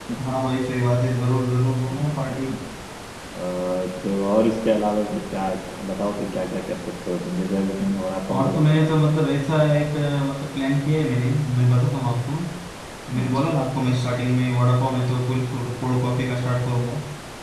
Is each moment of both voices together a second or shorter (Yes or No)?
Yes